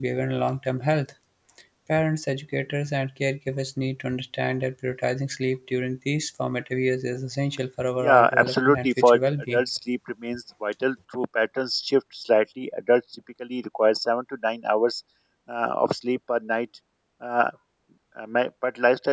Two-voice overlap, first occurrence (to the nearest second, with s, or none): 8 s